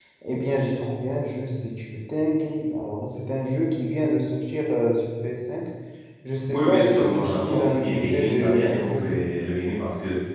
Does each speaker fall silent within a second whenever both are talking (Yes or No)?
No